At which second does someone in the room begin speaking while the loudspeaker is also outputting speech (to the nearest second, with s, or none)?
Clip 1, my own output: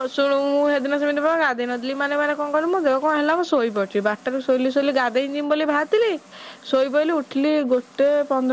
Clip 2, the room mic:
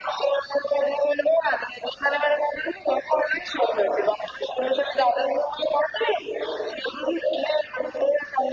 none